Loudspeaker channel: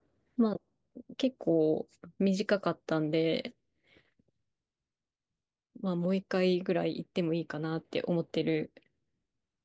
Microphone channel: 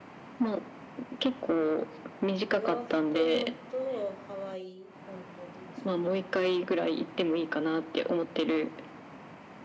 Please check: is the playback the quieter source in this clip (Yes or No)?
No